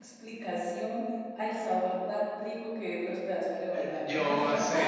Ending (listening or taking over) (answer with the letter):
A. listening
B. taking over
B